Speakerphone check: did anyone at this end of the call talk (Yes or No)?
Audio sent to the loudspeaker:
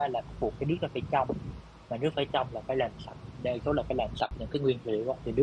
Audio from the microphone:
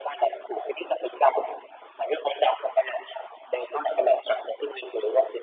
No